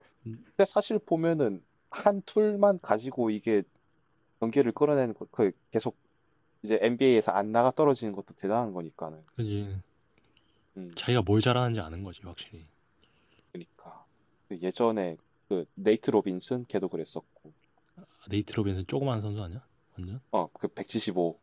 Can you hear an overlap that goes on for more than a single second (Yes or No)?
No